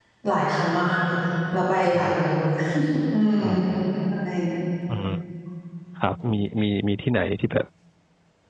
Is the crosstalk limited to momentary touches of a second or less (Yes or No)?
Yes